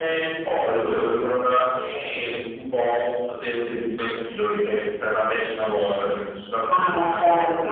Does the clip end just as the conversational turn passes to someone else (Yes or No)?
Yes